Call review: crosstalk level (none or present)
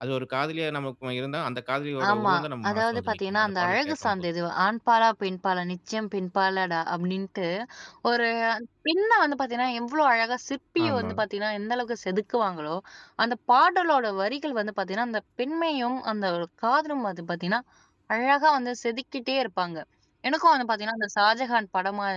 present